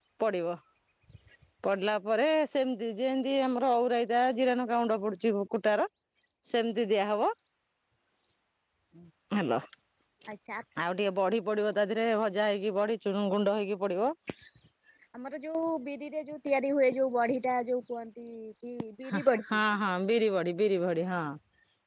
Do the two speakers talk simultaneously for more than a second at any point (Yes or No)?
No